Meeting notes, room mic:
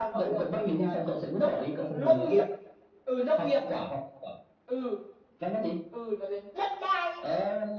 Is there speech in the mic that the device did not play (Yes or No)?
Yes